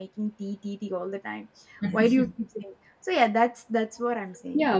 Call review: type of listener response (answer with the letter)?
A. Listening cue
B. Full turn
B